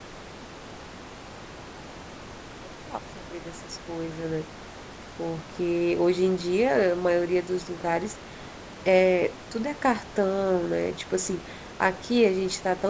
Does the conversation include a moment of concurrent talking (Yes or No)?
No